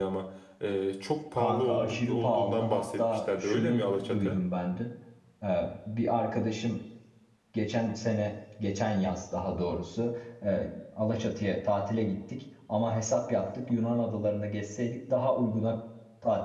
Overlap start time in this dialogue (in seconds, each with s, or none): 1.4 s